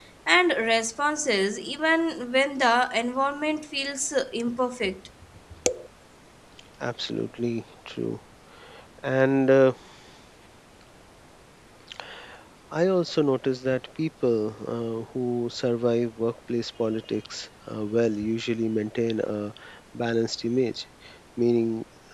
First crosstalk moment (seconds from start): none

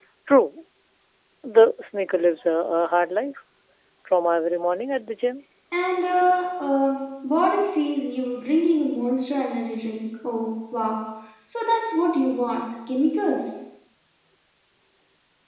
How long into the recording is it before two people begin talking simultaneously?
none

